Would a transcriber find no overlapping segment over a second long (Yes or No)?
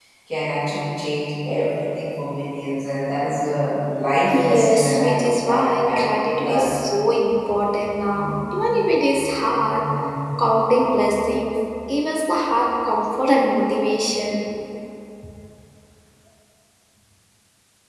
No